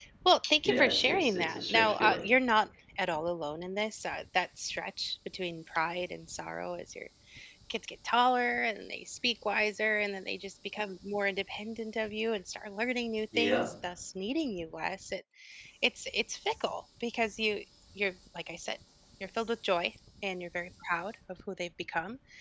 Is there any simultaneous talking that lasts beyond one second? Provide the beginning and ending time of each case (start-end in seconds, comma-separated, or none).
0.6-2.3